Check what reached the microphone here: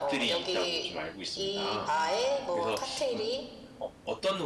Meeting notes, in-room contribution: present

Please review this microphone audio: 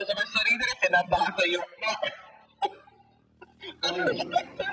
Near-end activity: present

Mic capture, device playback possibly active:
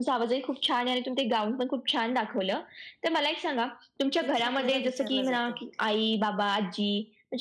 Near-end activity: present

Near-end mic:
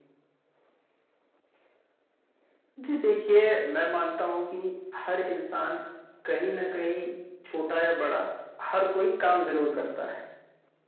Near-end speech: none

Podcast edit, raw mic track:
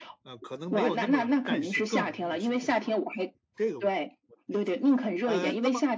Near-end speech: present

